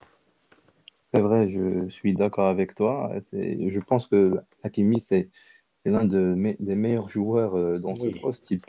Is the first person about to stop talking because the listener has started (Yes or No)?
No